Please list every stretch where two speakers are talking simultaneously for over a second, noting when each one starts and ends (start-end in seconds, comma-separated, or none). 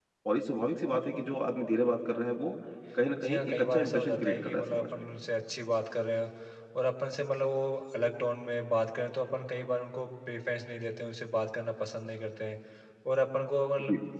3.2-4.9